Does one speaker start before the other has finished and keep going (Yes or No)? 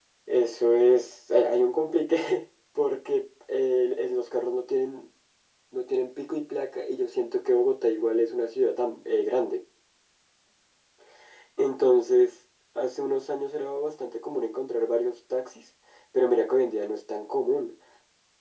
No